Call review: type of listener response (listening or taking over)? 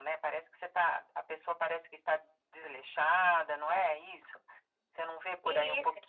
taking over